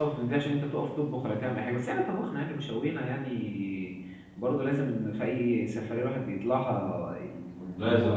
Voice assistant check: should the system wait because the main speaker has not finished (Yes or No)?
No